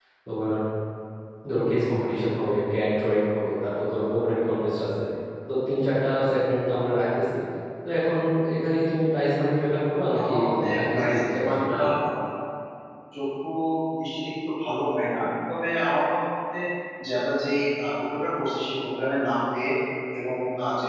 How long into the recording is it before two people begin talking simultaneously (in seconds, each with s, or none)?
10.2 s